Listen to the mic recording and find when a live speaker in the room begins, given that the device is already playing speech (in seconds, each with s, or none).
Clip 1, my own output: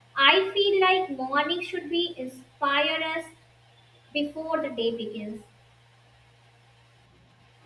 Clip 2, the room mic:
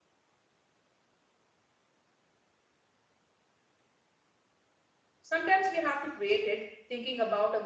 5.2 s